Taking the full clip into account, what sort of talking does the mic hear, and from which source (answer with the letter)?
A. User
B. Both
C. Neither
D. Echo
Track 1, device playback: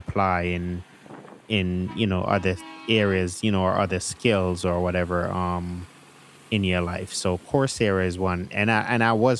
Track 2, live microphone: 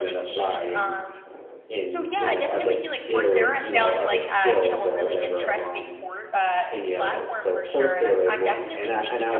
B